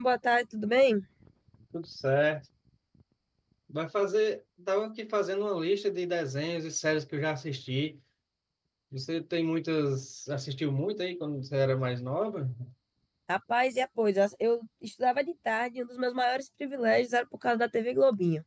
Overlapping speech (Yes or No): No